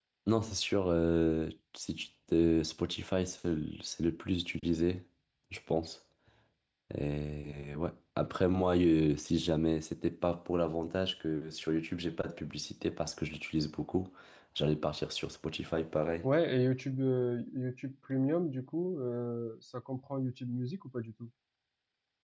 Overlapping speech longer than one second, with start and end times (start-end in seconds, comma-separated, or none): none